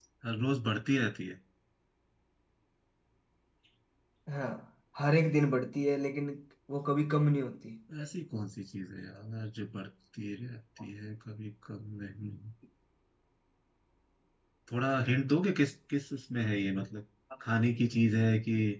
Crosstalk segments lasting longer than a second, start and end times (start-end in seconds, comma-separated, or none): none